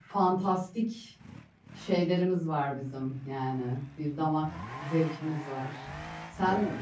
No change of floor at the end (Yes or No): Yes